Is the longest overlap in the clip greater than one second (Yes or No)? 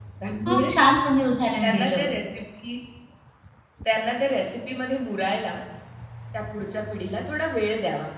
No